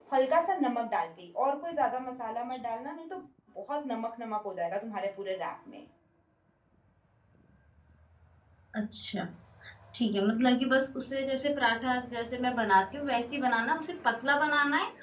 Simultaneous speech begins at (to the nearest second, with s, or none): none